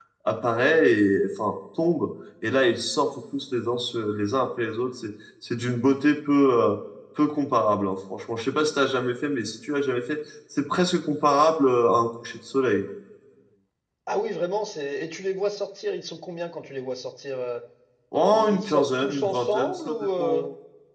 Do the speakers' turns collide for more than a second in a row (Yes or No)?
Yes